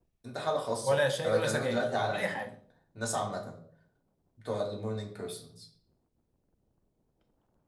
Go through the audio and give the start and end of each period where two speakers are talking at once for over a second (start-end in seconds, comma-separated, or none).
0.8-2.5